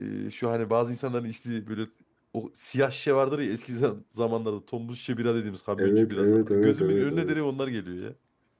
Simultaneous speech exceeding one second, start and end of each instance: 5.8-7.4

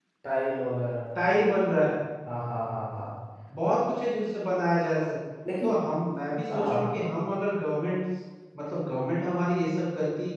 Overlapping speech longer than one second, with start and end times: none

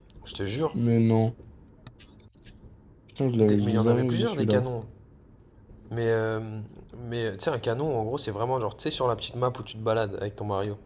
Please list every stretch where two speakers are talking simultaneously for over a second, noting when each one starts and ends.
3.4-4.6

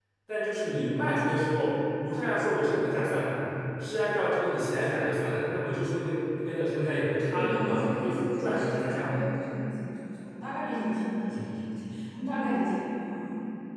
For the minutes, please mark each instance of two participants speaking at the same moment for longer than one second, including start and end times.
7.3-9.2

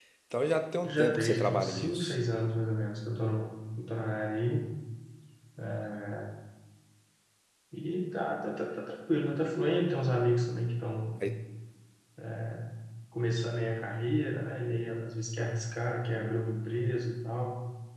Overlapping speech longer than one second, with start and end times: 0.8-2.2

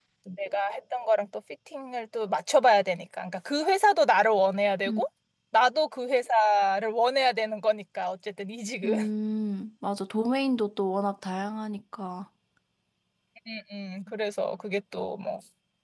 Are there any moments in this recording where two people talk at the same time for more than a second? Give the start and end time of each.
none

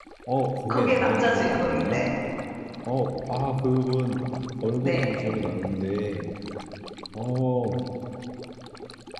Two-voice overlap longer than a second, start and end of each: 0.7-2.0

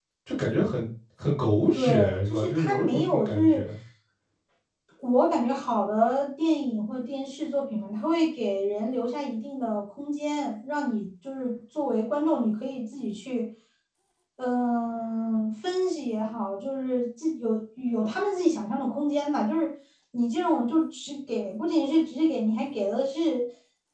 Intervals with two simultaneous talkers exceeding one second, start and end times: 1.7-3.6

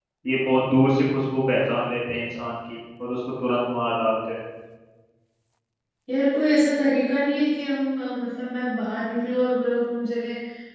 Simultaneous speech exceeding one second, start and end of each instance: none

